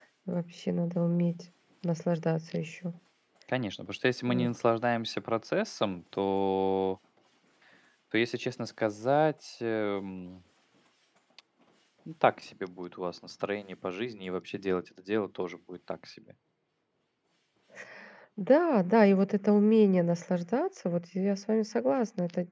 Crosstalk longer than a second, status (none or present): none